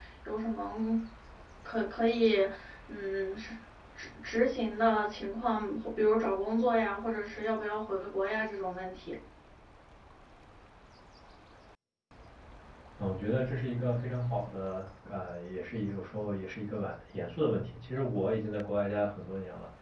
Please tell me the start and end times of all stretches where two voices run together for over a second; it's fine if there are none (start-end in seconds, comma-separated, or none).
none